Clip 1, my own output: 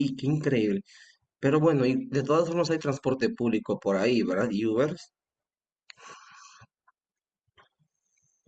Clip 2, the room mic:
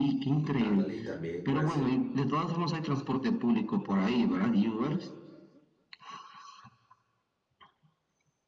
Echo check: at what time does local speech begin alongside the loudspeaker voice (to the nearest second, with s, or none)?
1 s